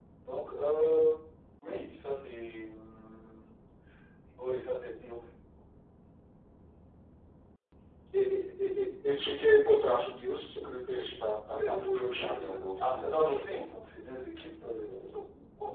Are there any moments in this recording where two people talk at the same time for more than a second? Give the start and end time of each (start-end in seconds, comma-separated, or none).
11.5-13.6